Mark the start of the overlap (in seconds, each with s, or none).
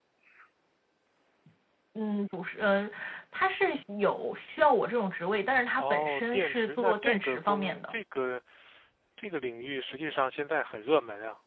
5.8 s